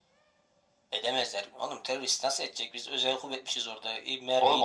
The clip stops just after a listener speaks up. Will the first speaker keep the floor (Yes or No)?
No